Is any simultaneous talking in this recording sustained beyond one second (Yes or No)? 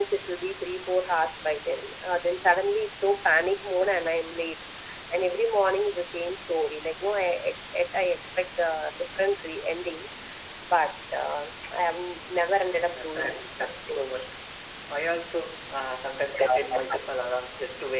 Yes